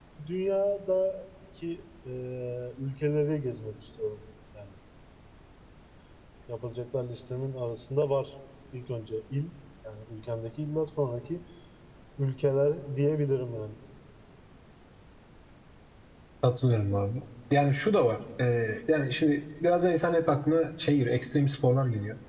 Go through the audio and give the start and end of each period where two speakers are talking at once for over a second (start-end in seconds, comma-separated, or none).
none